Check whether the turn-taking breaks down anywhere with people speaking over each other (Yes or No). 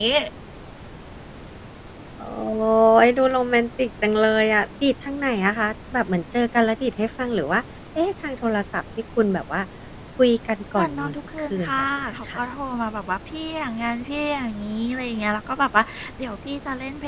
Yes